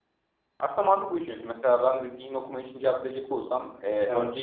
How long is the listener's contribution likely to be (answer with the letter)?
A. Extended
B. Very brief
B